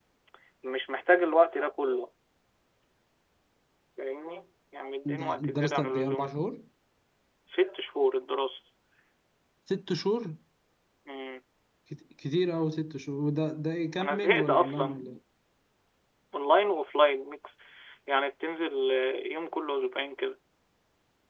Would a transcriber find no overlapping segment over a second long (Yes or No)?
No